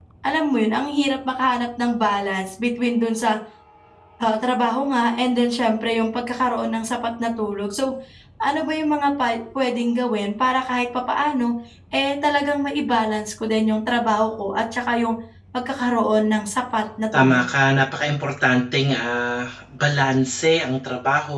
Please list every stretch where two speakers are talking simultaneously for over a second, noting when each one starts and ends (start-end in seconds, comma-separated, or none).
none